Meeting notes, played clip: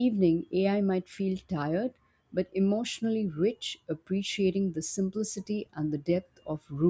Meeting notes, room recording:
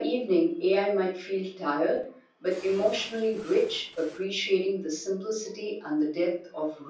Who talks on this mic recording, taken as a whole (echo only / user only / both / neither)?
echo only